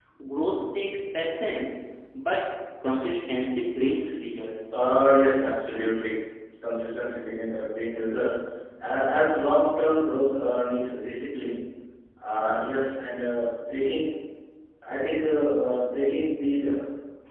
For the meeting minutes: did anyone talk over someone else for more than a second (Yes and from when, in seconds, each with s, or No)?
No